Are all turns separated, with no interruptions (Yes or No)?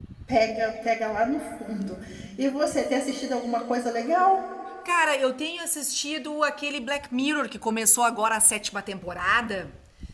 Yes